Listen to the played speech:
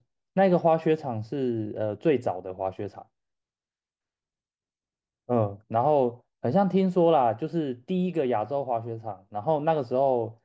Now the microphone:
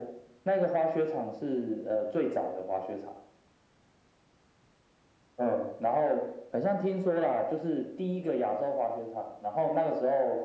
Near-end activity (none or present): none